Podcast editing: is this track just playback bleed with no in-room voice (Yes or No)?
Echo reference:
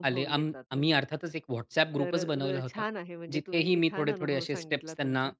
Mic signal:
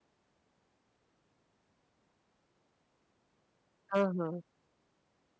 No